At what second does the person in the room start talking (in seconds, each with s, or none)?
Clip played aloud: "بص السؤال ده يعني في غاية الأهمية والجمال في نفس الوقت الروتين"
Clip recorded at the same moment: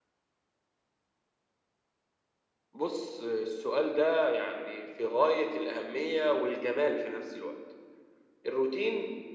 none